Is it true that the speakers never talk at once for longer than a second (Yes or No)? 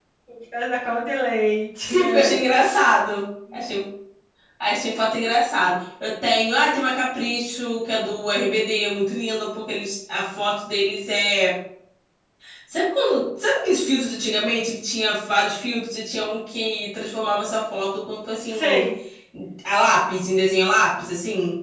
Yes